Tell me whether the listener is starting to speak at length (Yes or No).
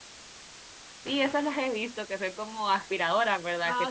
Yes